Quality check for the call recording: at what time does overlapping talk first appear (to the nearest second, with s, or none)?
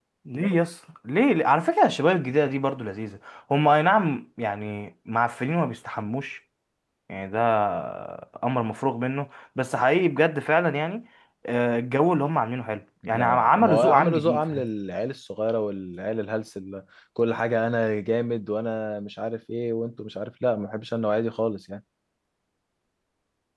13 s